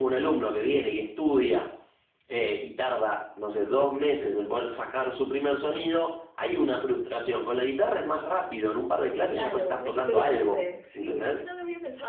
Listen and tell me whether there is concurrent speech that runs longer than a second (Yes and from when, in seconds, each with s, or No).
Yes, from 9.3 s